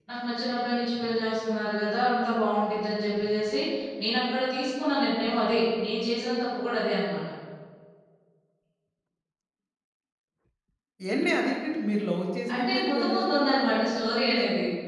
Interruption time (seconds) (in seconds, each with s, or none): 12.5 s